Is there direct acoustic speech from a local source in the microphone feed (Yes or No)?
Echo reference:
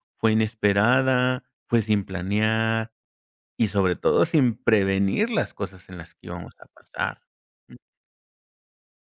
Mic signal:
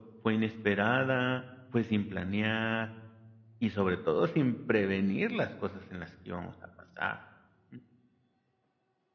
No